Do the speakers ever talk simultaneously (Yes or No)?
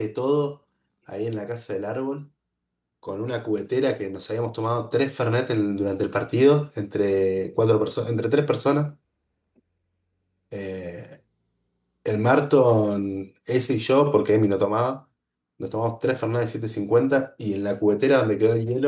No